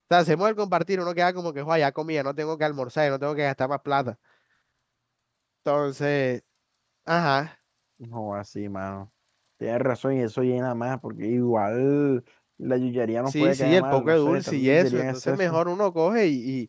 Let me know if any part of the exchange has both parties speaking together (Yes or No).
Yes